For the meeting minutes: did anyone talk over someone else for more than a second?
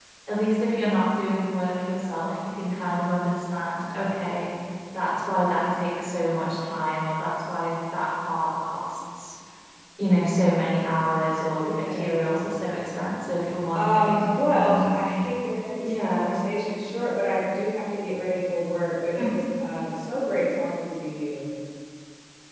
Yes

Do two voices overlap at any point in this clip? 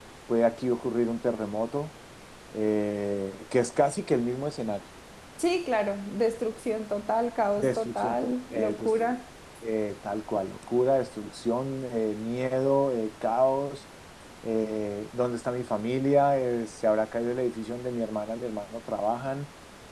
Yes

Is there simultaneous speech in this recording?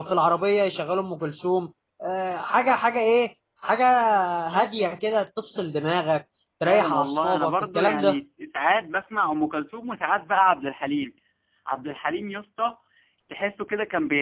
Yes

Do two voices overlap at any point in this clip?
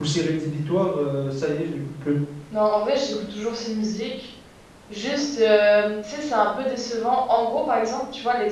No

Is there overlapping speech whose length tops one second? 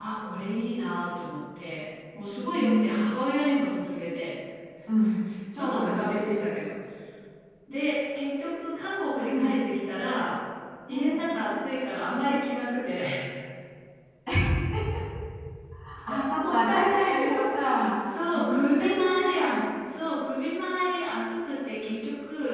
Yes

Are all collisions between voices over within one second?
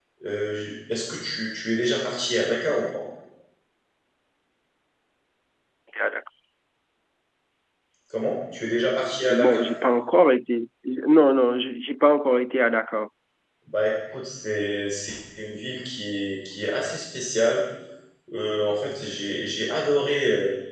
Yes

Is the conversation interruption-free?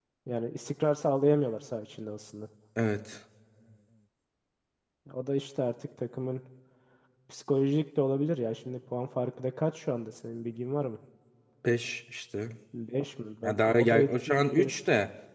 No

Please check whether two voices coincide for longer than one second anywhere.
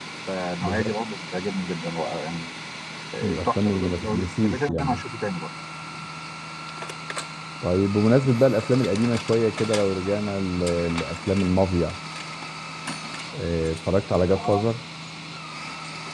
Yes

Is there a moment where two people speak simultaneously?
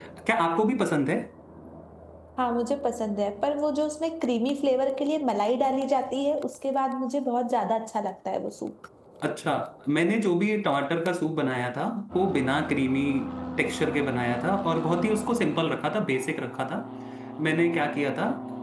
No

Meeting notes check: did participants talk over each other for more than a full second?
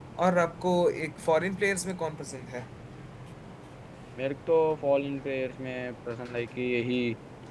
No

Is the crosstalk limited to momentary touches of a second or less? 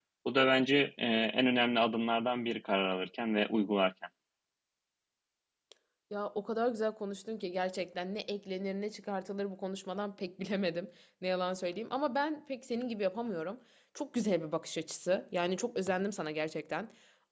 Yes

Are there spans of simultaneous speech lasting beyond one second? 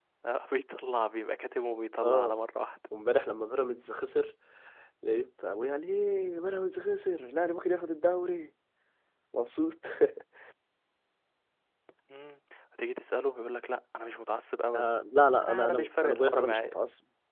Yes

